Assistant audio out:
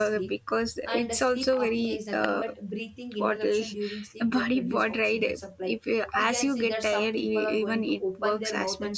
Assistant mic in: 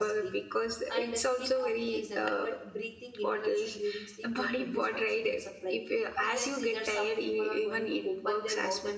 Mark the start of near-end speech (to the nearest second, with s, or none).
none